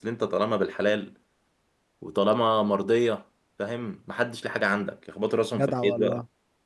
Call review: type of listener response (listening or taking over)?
taking over